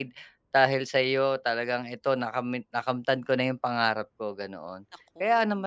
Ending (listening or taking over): listening